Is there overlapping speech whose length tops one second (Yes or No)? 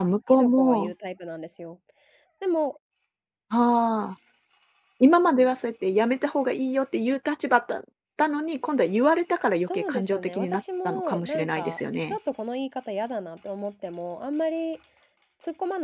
Yes